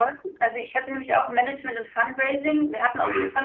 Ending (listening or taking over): listening